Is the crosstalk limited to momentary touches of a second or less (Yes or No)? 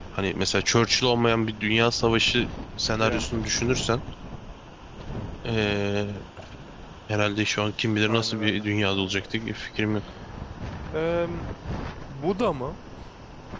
No